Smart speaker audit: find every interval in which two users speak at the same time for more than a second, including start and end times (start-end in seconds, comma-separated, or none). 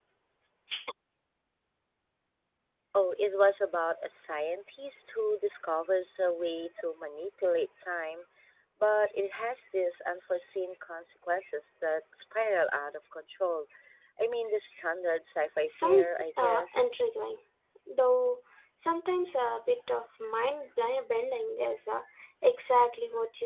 15.7-16.9